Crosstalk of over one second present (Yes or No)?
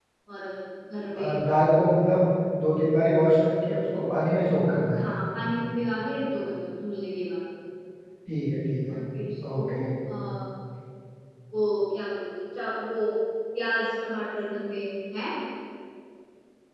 No